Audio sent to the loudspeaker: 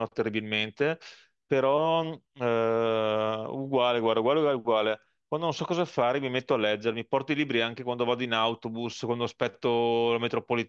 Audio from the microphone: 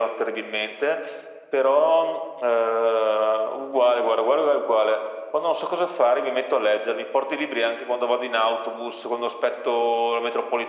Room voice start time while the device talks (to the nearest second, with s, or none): none